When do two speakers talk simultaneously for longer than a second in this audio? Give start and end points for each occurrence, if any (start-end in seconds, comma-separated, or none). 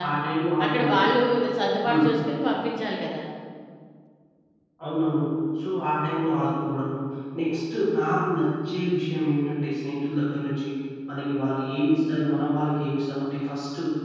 none